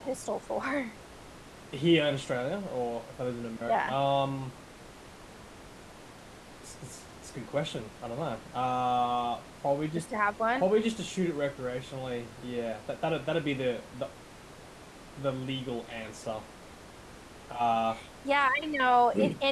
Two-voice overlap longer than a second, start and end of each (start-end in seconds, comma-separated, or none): none